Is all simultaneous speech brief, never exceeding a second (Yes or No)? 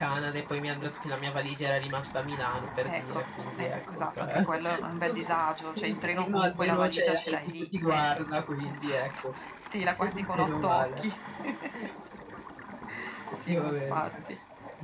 No